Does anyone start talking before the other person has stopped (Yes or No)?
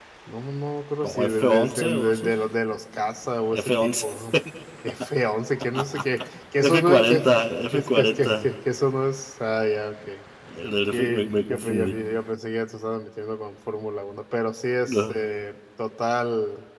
Yes